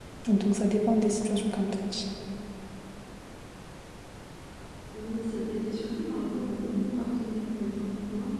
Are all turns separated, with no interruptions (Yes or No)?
Yes